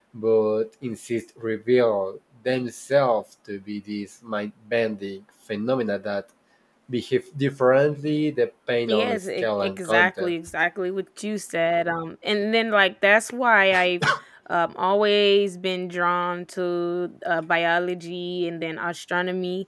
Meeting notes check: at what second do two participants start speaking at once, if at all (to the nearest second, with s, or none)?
9 s